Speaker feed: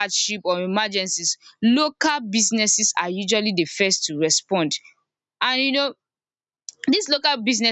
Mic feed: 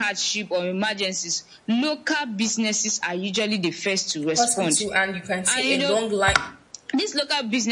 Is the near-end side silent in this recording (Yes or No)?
No